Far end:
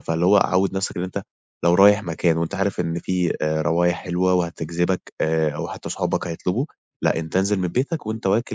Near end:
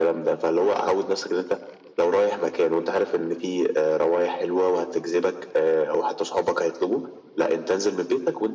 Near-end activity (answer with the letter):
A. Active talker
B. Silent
B